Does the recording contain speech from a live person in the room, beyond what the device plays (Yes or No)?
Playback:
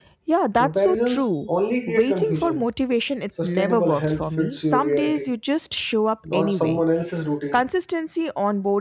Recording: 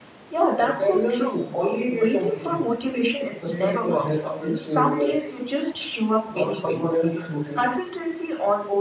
No